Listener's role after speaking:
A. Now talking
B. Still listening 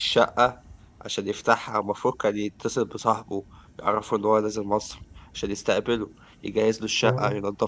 B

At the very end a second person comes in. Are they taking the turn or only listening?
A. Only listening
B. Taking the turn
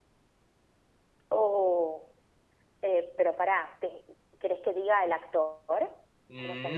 B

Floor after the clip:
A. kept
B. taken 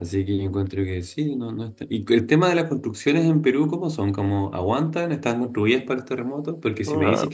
A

